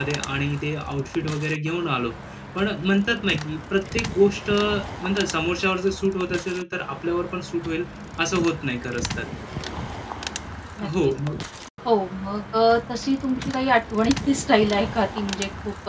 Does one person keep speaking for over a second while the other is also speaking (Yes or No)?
No